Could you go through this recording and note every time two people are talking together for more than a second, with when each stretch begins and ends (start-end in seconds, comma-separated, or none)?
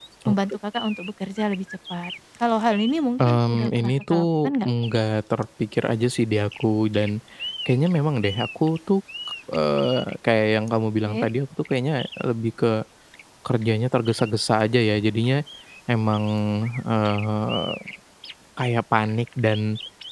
3.2-4.7